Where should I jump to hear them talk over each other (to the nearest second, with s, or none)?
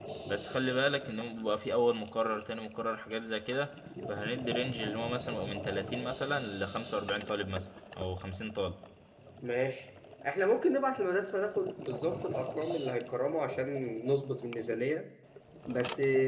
none